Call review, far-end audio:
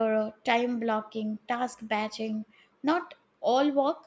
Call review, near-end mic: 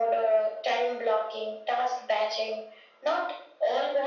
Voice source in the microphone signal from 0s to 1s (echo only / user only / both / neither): echo only